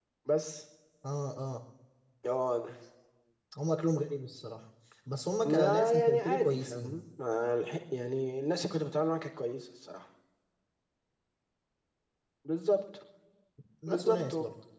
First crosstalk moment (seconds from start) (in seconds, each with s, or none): 5.4 s